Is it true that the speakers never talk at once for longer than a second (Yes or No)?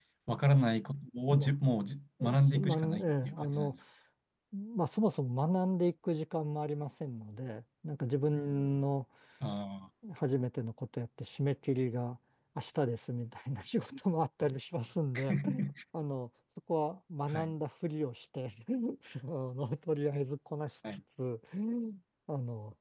No